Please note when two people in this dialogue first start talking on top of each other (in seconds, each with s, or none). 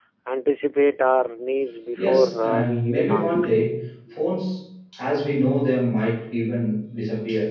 2.0 s